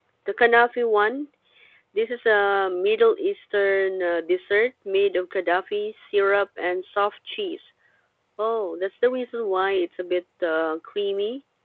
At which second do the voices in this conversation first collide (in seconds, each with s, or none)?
none